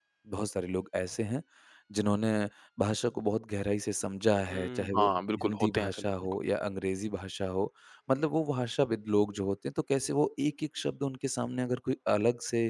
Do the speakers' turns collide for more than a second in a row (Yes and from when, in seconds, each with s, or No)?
Yes, from 4.5 s